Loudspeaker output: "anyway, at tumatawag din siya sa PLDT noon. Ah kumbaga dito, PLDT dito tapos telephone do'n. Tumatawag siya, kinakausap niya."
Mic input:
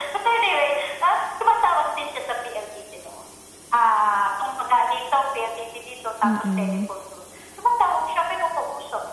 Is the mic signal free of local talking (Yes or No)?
No